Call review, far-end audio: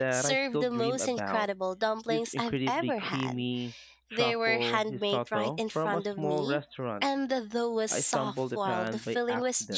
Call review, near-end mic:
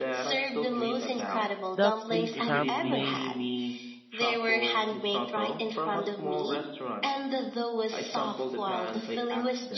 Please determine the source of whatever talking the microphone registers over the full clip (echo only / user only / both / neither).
both